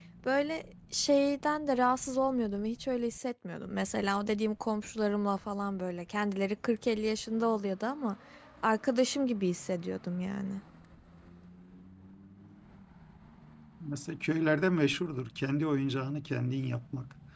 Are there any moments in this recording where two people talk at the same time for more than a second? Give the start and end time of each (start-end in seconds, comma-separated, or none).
none